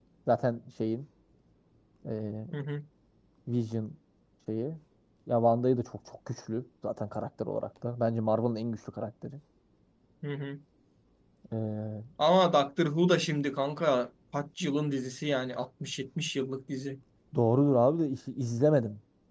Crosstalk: none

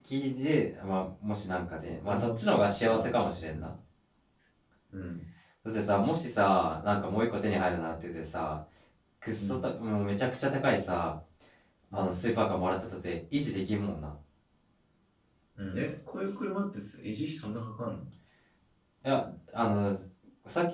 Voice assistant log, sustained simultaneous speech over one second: present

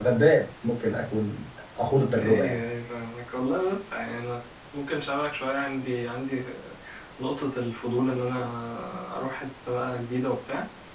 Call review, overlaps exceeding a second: none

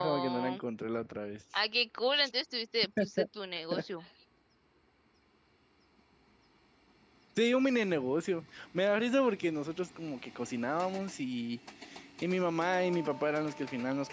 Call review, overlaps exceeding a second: none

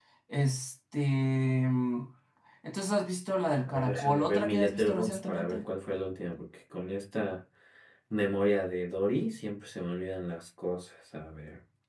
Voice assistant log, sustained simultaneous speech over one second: present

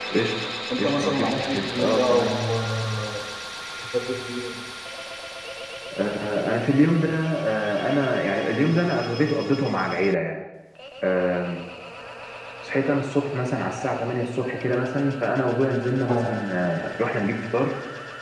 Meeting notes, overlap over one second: present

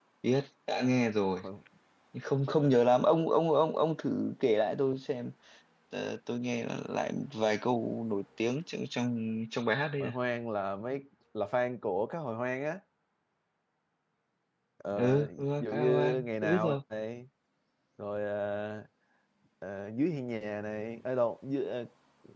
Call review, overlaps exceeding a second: present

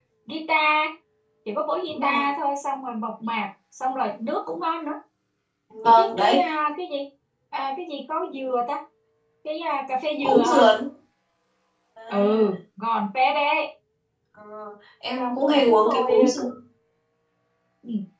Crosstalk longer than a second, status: present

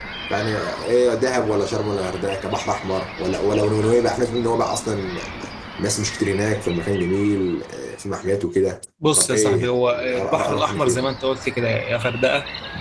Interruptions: present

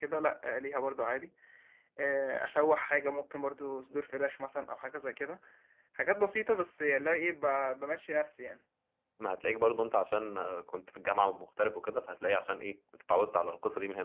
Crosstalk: none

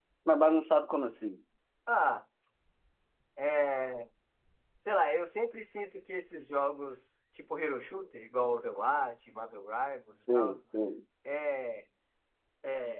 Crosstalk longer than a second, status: none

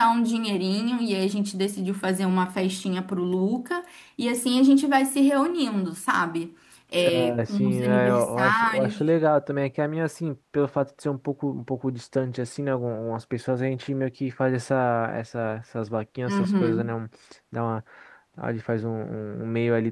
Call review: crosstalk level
present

